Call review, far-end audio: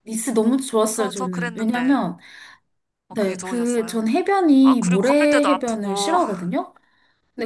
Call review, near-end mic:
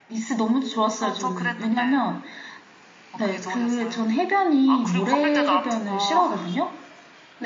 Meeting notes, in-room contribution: none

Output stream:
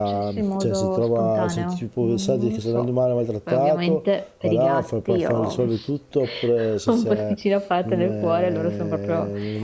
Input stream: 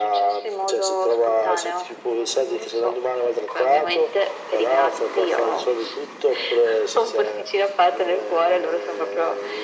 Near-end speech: none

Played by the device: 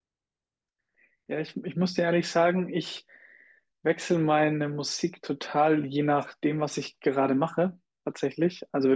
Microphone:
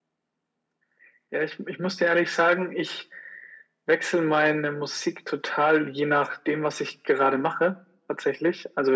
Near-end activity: none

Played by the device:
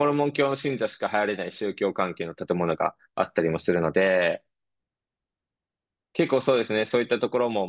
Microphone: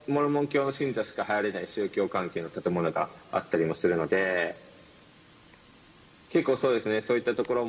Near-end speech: none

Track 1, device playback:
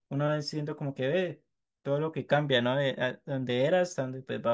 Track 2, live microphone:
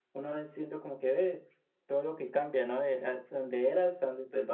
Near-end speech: none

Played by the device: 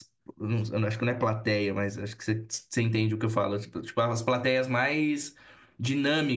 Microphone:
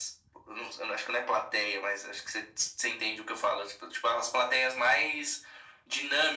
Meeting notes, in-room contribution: none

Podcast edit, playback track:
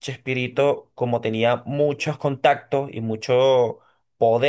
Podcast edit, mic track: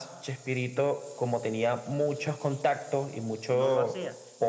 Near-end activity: present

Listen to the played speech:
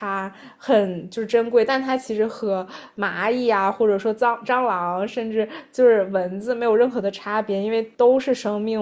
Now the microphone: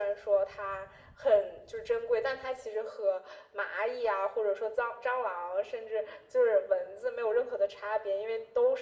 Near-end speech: none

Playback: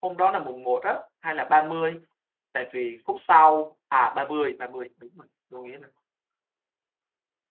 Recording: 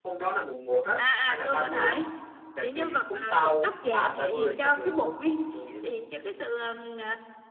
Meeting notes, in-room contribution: present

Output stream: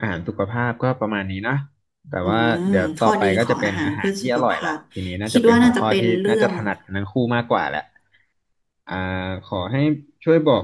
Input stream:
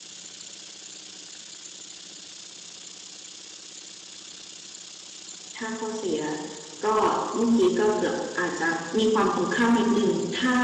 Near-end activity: present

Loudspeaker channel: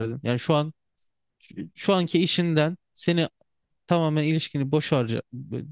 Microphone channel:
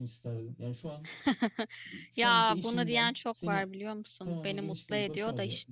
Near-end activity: present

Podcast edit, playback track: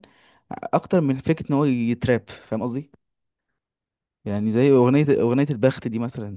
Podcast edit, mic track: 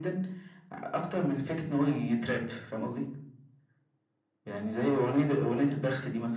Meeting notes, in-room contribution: none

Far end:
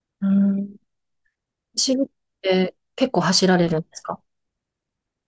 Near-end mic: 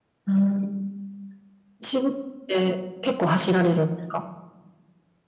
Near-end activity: none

